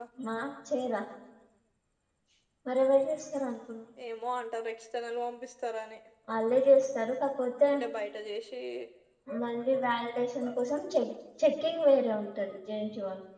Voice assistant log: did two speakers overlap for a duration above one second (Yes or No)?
No